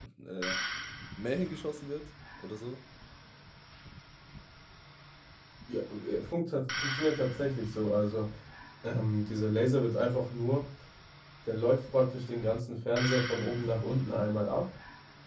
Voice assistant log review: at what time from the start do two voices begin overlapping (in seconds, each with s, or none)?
none